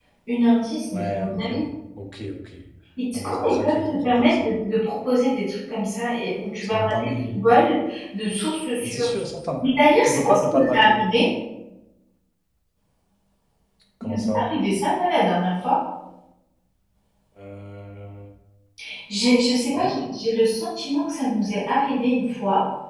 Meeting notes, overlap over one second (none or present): present